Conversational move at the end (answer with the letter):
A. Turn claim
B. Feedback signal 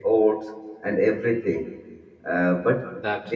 B